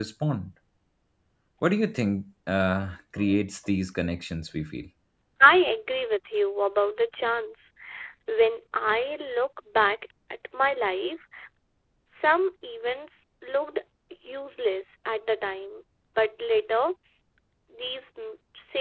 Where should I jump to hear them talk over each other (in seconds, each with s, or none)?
none